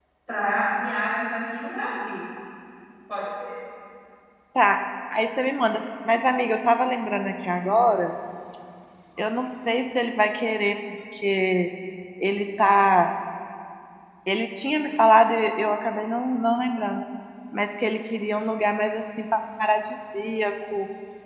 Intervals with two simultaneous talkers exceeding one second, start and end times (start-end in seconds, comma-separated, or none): none